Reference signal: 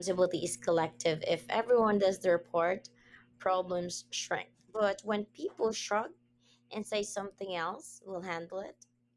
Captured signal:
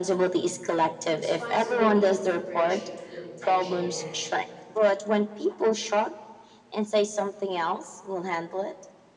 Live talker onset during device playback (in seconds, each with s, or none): 1.1 s